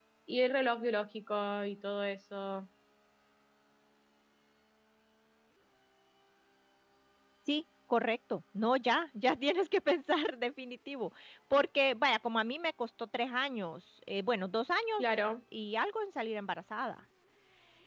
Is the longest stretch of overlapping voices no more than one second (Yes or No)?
Yes